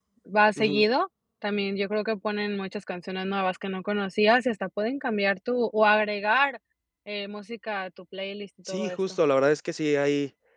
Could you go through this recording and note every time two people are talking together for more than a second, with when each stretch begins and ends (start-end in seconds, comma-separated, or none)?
none